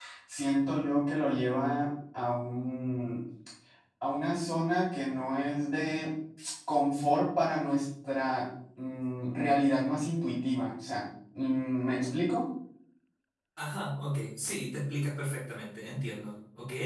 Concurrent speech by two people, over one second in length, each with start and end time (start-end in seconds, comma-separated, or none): none